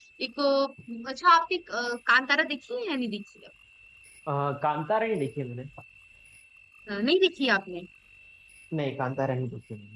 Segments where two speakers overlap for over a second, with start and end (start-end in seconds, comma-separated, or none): none